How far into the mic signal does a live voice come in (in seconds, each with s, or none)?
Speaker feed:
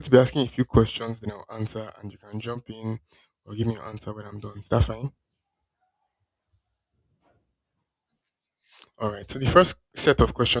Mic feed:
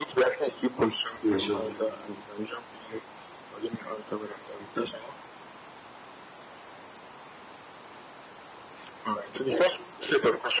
1.2 s